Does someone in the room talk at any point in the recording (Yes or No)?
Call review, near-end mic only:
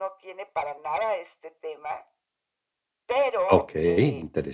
Yes